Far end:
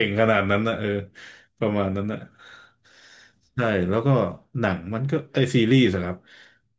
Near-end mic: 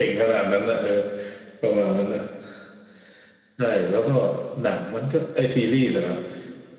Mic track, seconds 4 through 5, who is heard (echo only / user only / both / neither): echo only